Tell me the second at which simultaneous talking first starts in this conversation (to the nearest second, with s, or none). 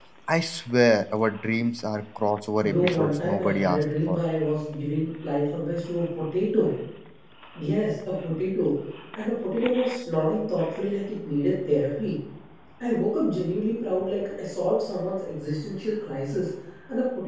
3 s